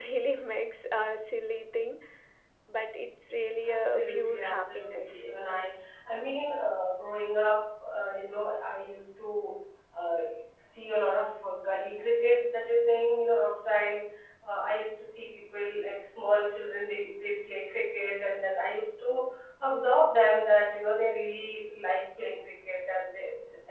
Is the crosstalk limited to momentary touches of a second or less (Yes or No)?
No